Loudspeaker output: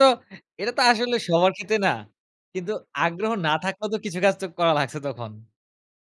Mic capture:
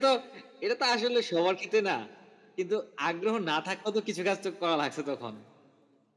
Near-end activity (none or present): none